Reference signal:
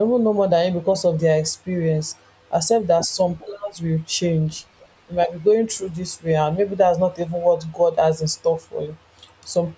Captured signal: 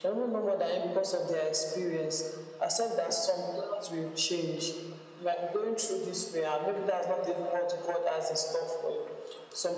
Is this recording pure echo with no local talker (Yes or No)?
Yes